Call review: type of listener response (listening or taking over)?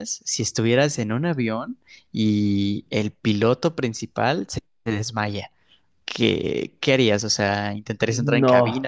listening